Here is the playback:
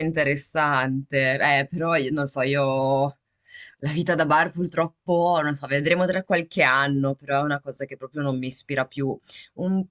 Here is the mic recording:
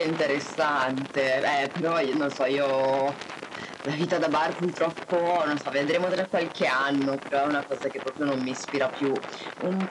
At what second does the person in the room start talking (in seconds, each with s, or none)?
none